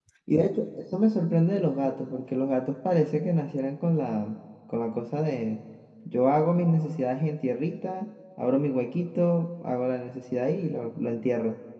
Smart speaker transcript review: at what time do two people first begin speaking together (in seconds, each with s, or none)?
none